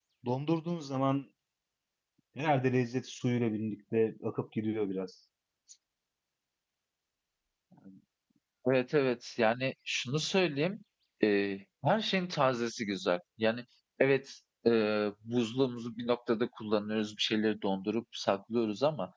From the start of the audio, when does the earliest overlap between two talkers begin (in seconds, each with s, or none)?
none